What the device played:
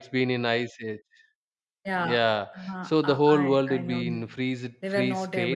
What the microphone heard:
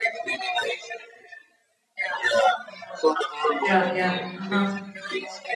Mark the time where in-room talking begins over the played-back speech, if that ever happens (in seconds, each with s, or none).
3.6 s